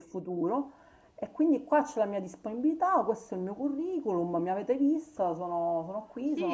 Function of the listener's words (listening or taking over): taking over